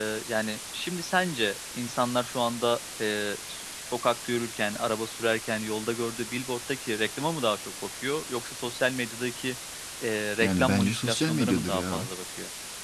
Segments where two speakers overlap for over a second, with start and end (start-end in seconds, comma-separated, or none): 10.4-12.1